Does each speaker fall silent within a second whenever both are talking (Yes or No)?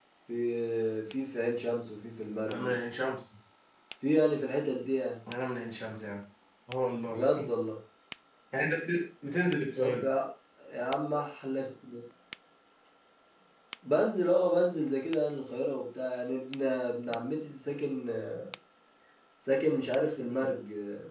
Yes